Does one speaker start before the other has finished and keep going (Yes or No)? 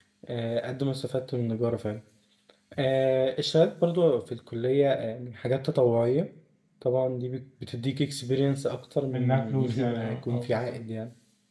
Yes